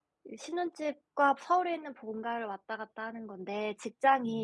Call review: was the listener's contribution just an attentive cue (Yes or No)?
Yes